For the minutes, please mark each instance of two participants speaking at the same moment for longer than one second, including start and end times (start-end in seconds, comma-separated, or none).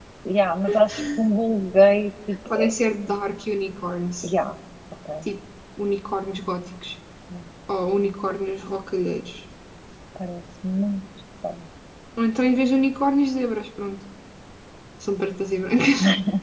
none